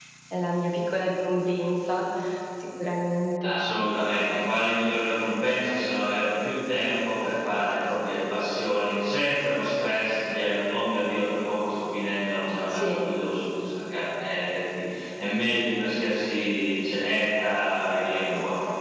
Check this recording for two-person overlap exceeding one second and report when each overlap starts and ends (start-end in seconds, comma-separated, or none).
none